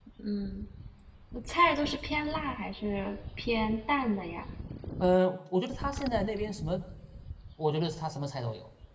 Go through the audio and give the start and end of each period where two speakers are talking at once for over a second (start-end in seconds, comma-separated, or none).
none